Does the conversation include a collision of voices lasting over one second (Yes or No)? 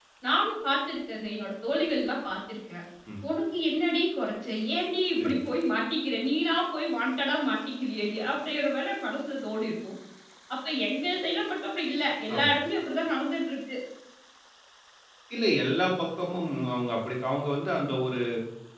No